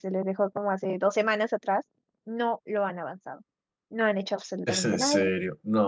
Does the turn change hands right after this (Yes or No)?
Yes